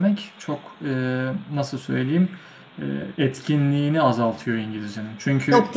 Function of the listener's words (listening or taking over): listening